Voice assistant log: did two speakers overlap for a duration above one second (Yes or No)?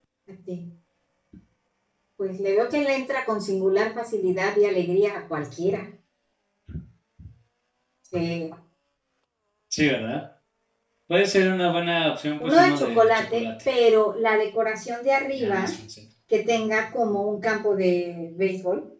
Yes